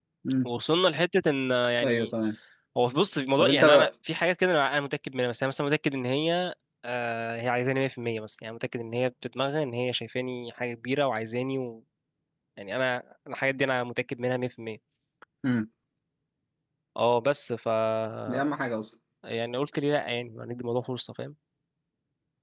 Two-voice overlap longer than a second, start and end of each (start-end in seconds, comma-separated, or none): none